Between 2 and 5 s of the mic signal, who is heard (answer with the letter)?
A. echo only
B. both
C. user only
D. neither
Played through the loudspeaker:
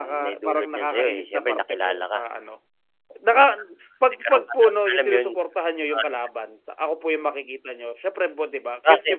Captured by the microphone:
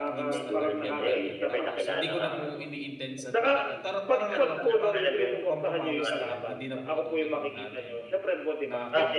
B